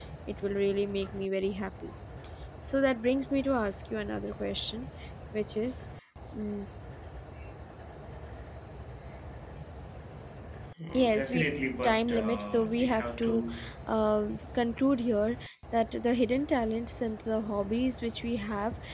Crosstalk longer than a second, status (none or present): present